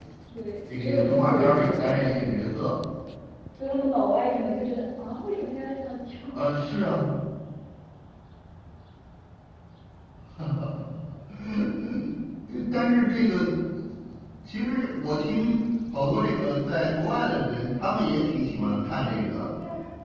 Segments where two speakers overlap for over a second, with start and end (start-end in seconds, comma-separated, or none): 0.8-2.3